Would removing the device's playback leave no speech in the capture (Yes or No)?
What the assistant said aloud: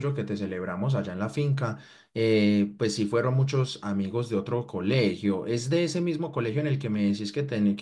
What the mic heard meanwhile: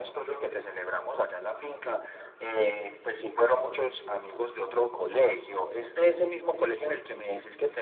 Yes